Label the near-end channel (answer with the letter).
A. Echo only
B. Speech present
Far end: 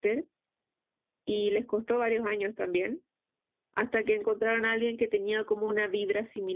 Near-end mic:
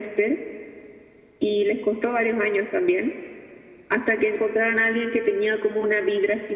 A